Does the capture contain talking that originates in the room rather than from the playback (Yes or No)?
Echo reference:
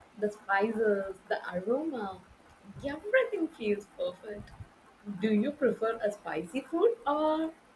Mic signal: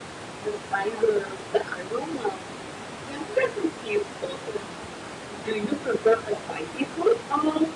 No